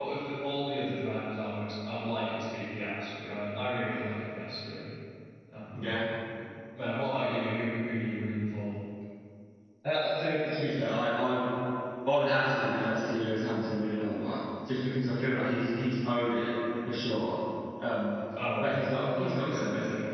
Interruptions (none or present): present